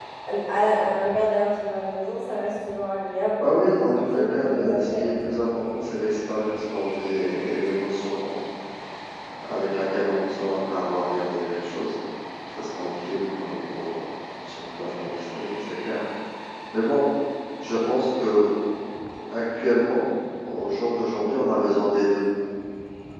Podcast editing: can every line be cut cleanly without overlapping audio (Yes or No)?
No